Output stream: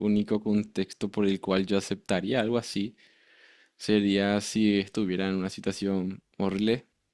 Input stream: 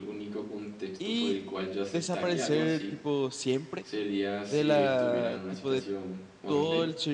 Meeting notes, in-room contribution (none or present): present